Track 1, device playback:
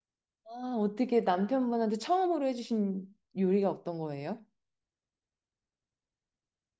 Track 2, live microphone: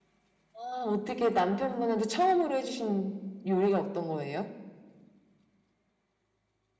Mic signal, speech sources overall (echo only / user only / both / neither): echo only